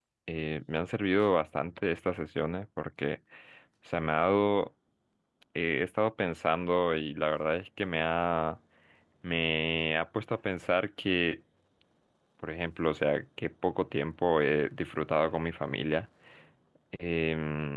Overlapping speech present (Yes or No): No